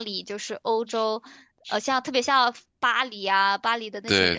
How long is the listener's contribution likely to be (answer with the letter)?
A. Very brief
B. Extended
A